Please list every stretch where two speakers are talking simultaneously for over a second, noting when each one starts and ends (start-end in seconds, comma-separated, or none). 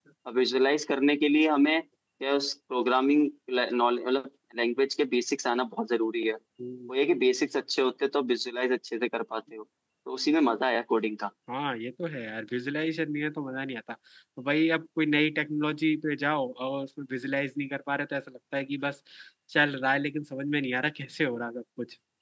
none